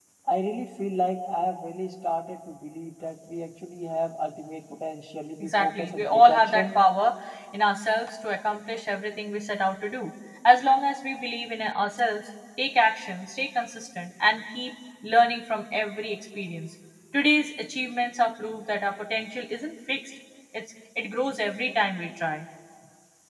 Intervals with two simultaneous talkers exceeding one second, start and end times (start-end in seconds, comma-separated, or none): 5.4-6.8